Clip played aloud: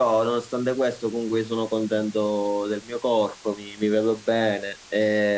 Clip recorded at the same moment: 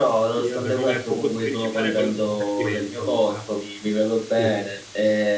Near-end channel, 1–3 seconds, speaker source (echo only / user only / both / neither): both